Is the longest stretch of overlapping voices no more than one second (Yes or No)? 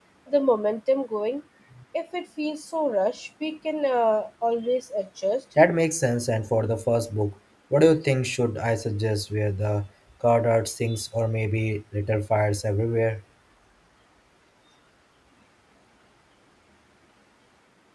Yes